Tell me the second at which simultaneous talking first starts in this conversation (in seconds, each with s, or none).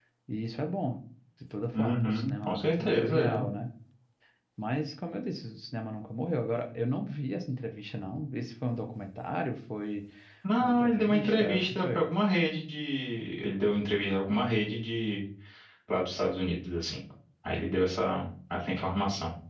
1.7 s